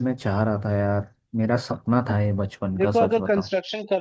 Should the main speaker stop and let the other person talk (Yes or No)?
Yes